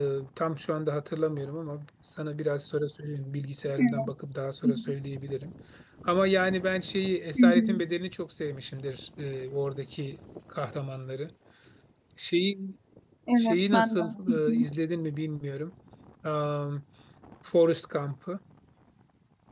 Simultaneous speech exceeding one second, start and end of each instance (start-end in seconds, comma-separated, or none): 13.4-14.7